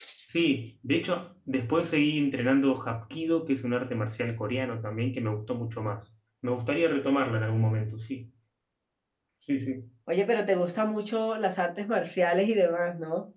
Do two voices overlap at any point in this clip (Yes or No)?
No